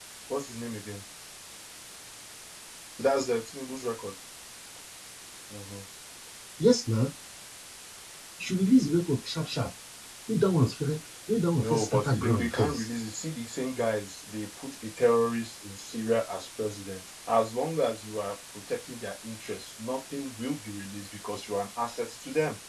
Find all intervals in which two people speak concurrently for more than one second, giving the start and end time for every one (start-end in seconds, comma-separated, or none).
11.6-12.9